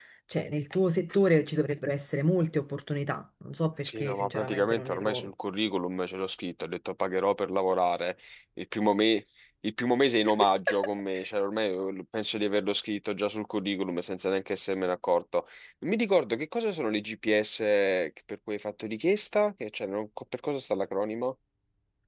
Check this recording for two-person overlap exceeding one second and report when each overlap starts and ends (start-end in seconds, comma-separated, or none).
3.8-5.3